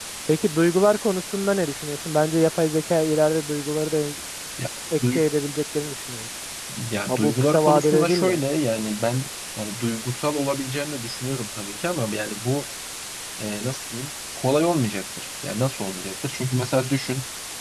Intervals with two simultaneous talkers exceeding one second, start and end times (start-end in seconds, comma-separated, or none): 7.1-8.4